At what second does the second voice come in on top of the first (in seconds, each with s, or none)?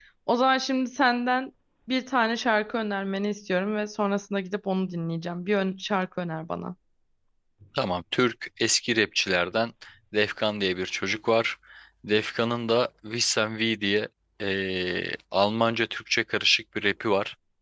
none